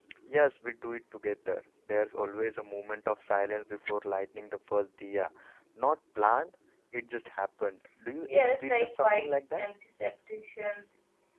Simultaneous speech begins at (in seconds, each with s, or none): 8.3 s